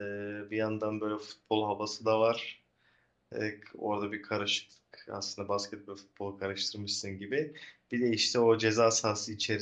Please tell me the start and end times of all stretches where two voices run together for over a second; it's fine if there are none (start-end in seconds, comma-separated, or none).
none